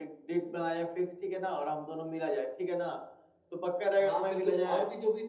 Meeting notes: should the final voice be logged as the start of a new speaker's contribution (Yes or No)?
Yes